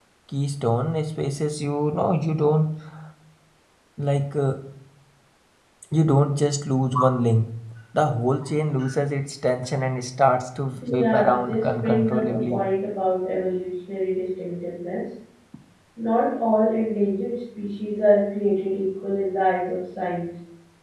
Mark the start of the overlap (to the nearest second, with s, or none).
11 s